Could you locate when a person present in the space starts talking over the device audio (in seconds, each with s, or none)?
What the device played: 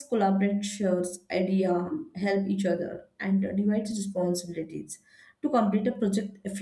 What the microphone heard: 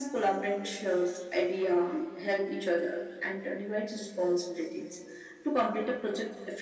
none